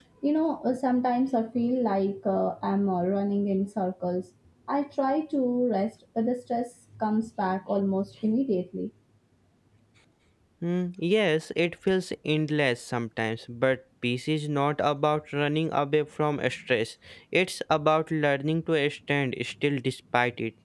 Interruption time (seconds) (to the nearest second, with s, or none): none